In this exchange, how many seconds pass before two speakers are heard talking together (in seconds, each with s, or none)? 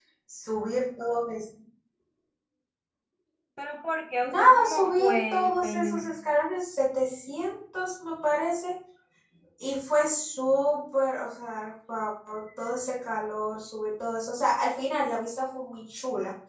4.2 s